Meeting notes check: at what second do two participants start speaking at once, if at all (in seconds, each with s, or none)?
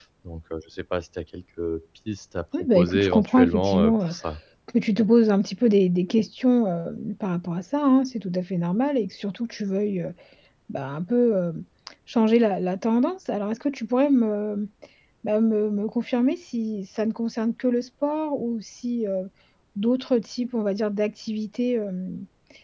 2.5 s